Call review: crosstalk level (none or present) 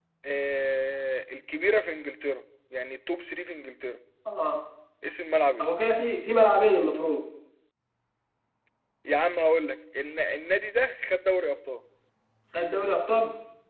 none